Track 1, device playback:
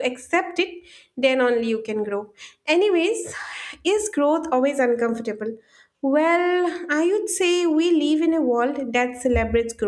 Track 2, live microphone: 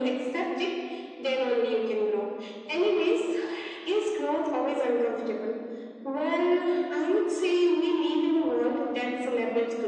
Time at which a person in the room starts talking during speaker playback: none

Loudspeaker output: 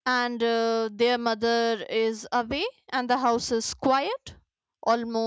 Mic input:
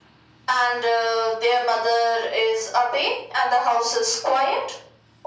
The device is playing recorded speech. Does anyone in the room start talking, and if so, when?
none

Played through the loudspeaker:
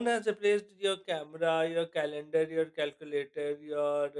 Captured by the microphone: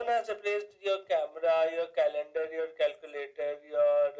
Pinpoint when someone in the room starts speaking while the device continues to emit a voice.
none

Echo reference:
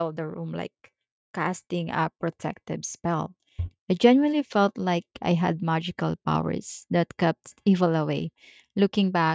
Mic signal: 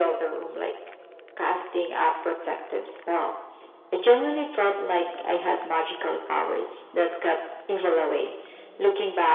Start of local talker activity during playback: none

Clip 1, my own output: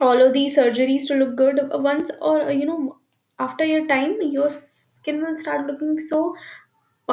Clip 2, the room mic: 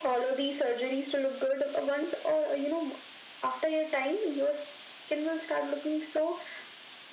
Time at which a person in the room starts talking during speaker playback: none

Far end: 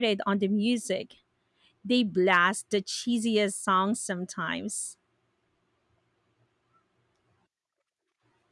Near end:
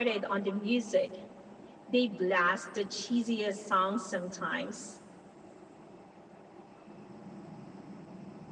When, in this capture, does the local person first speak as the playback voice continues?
none

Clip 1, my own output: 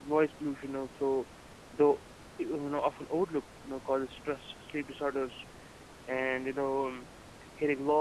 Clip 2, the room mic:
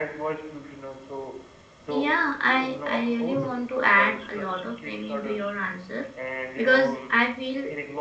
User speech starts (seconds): 2 s

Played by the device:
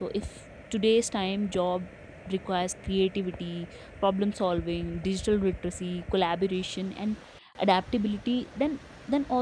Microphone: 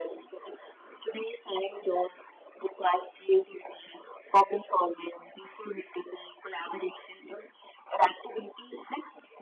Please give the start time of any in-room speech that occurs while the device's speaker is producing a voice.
none

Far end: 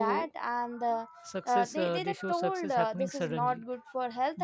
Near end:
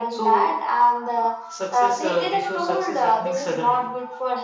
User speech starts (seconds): none

